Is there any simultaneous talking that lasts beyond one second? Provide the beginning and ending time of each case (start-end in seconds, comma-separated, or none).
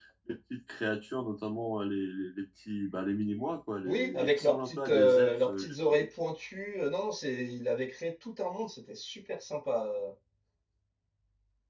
3.8-6.0